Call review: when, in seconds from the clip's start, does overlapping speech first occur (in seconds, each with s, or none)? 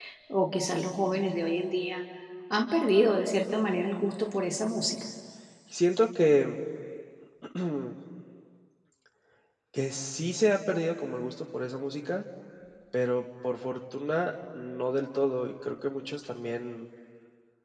none